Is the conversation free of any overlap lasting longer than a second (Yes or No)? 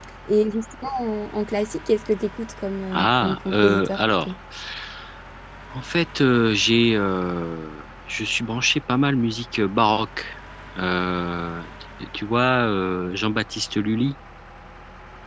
No